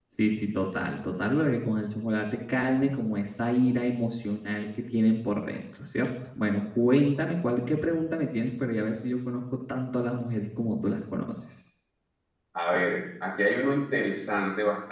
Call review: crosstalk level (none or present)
none